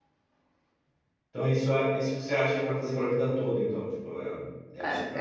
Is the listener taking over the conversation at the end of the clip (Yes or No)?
Yes